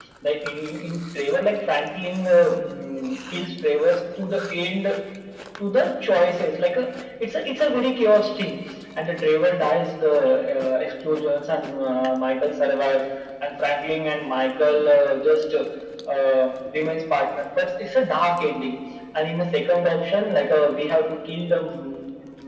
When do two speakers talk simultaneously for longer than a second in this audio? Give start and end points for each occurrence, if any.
none

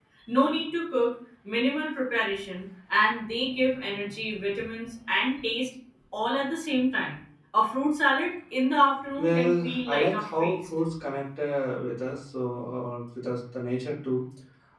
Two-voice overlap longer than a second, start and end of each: 9.2-10.6

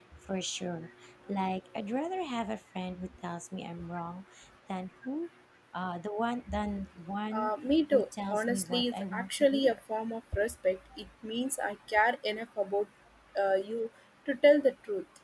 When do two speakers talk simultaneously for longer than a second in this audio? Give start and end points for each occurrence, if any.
7.9-9.8

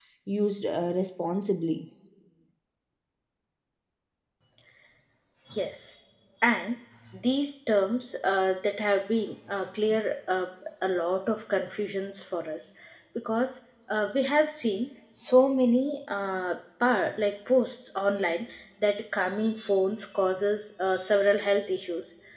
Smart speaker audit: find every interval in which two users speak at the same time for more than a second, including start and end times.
none

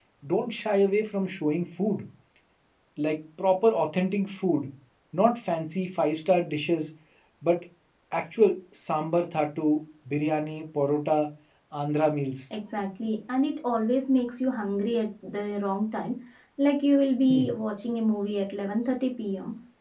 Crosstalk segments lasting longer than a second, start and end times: none

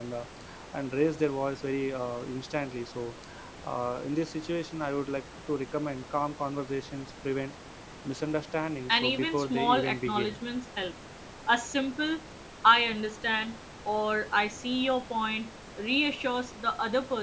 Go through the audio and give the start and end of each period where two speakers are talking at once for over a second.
8.9-10.4

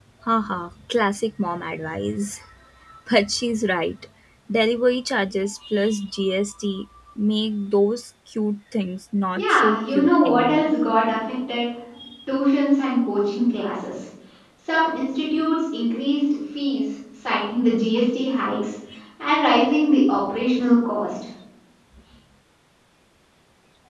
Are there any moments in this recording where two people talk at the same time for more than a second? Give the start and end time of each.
9.4-10.7

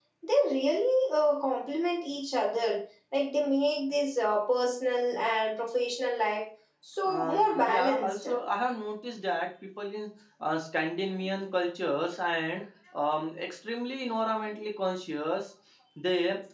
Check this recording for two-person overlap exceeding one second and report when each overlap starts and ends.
7.0-8.2

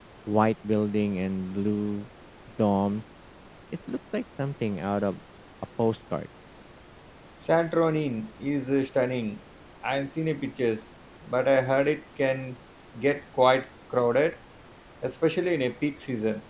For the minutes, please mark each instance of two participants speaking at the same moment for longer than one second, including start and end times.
none

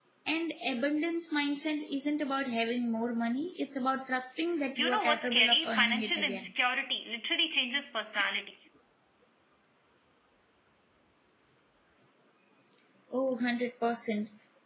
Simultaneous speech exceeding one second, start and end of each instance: 4.8-6.5

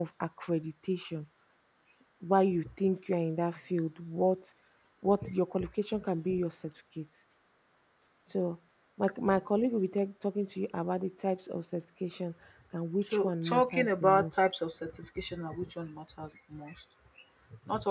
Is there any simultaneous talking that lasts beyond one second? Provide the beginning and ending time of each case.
13.0-14.4

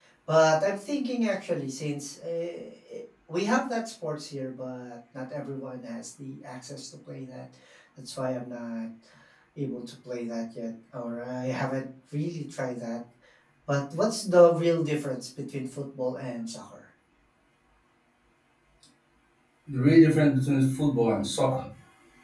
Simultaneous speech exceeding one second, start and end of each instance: none

